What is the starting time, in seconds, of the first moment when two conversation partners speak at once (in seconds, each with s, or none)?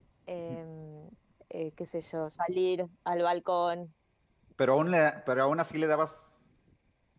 none